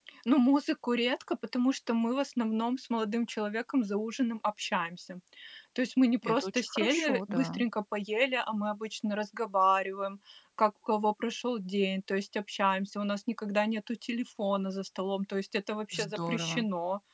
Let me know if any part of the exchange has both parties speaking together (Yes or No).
Yes